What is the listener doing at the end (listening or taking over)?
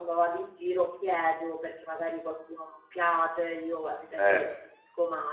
listening